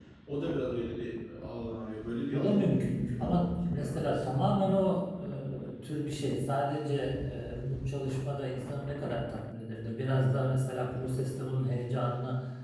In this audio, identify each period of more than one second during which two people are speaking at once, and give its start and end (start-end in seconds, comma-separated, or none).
2.3-4.6